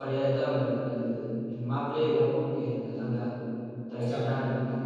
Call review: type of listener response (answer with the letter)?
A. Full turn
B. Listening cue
B